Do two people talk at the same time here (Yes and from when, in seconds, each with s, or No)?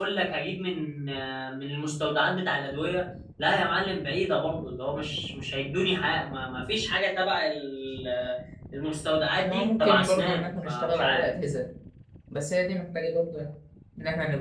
Yes, from 9.5 s